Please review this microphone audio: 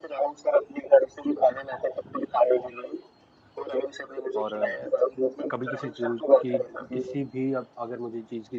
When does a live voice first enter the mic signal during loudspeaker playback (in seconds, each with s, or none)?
4.4 s